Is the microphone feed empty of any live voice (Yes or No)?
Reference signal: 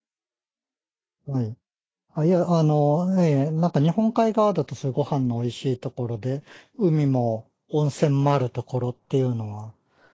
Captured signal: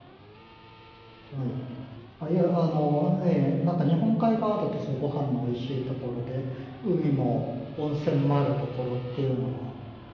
Yes